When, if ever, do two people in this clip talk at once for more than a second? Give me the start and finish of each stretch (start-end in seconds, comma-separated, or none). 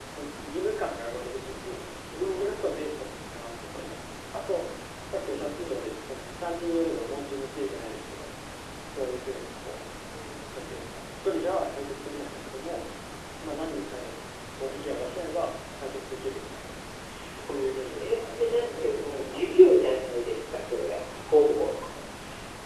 17.5-19.6